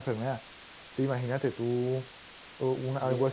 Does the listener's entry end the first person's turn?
No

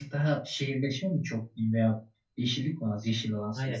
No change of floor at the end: No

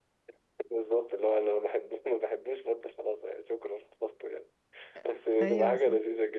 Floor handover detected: No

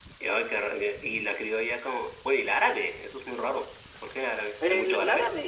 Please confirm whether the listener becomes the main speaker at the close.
Yes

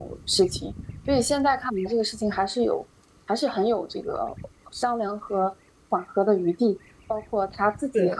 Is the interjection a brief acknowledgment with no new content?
Yes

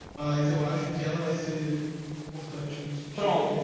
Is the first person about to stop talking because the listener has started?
Yes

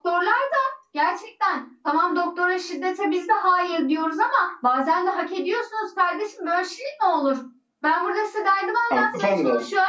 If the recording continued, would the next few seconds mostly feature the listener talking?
No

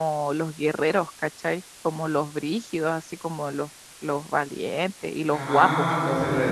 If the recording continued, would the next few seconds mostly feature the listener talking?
Yes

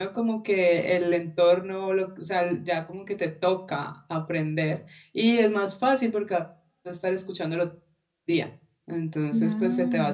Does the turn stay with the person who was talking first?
Yes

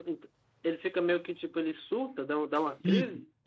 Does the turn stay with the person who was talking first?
No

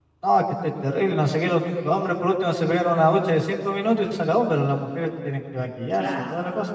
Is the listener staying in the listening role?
No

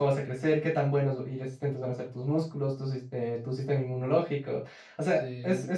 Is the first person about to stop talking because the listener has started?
No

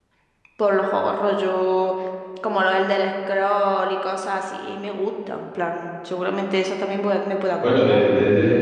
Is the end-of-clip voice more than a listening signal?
Yes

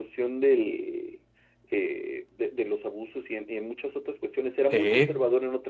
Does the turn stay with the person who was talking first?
Yes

